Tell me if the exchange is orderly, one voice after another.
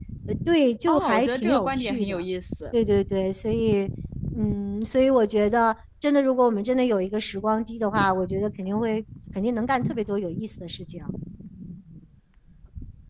No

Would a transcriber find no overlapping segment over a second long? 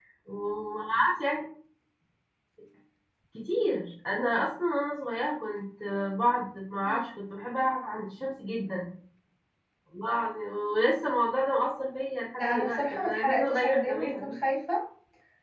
No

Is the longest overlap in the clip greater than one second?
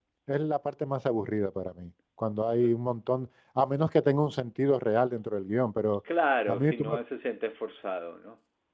No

